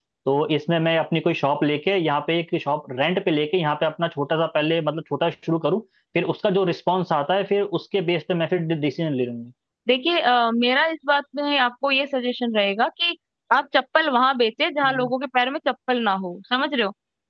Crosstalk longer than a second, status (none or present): none